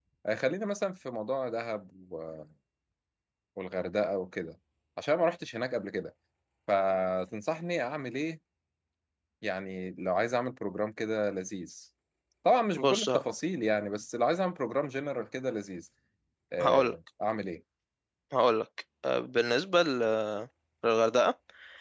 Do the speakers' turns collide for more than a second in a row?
No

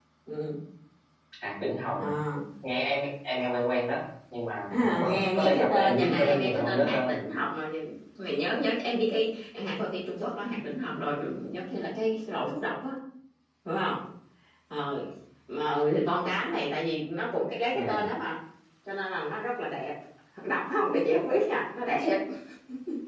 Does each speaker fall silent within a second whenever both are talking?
No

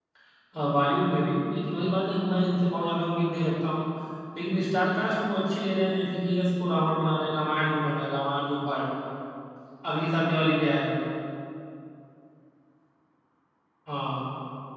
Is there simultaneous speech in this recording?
No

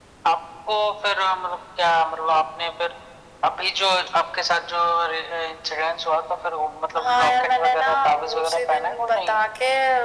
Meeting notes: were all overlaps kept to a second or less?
No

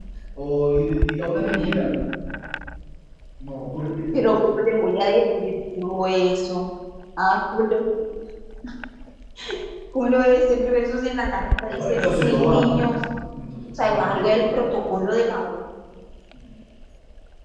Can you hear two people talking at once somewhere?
Yes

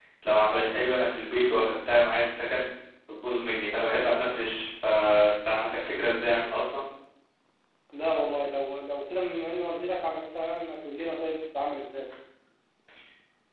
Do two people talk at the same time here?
No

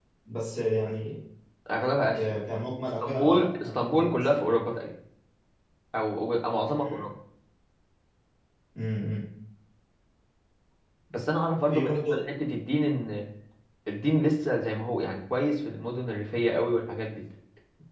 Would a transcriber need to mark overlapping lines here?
Yes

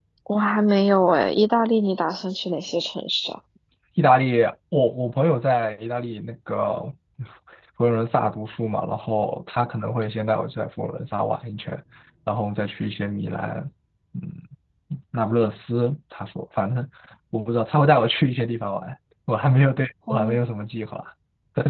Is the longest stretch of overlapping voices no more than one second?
Yes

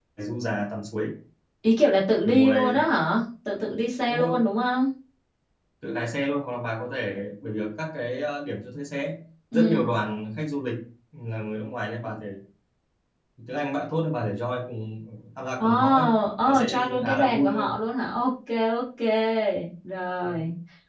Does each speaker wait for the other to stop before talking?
No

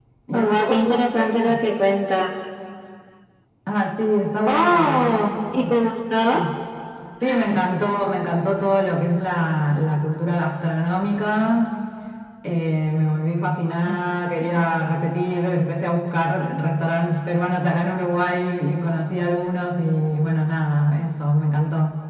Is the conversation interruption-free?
No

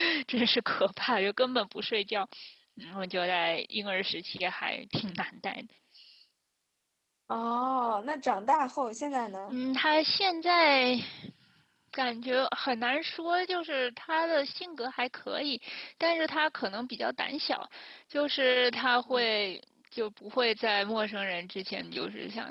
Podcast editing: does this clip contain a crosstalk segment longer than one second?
No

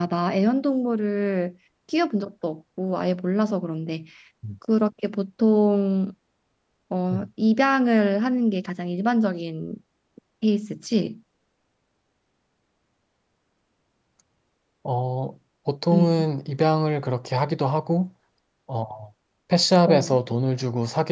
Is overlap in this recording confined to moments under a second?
Yes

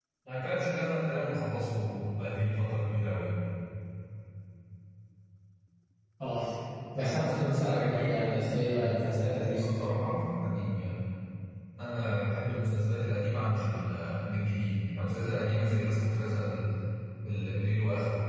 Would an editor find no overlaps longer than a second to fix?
No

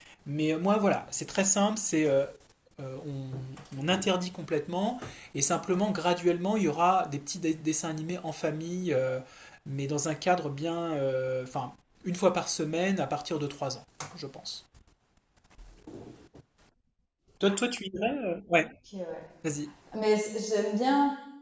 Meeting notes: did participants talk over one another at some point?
No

